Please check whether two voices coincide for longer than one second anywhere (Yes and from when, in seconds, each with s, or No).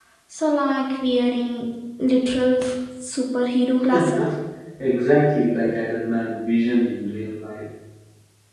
No